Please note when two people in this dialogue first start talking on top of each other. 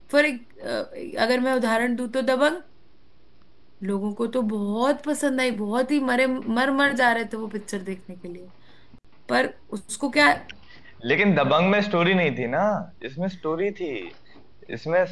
none

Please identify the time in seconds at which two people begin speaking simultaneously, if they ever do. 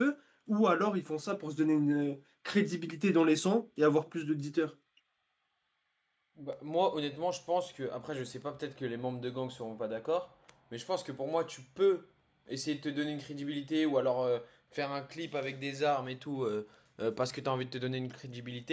none

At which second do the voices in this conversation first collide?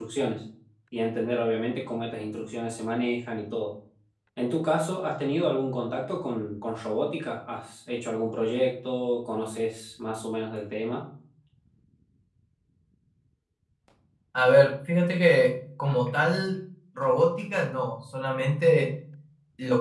none

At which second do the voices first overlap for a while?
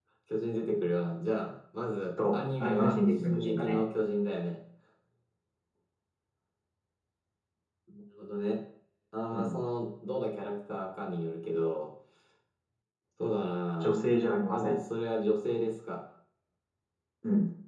2.3 s

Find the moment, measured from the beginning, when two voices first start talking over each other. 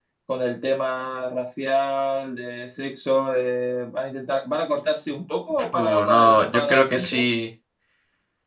5.7 s

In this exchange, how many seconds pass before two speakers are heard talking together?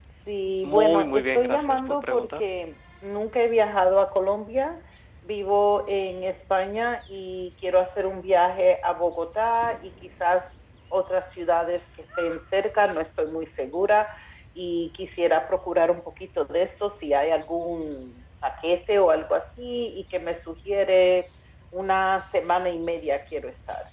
0.6 s

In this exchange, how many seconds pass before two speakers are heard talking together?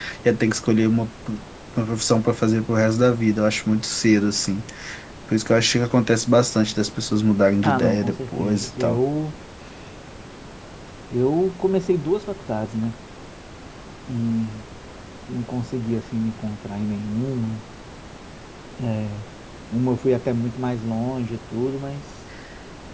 7.6 s

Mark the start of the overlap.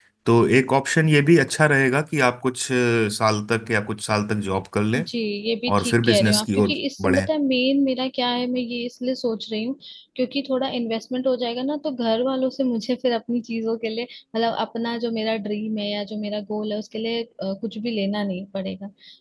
5.7 s

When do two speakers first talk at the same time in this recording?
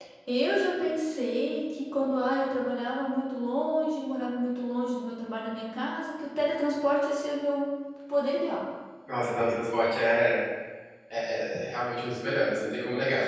none

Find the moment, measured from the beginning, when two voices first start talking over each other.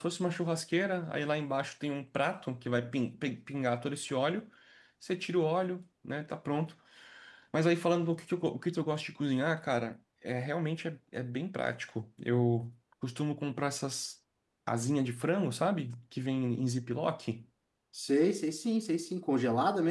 none

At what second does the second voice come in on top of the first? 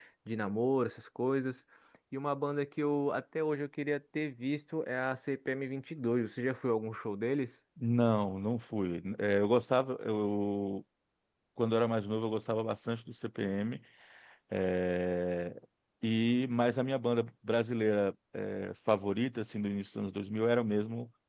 none

